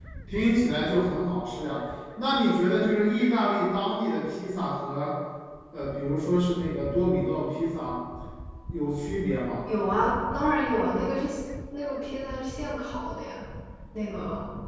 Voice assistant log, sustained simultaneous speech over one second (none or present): none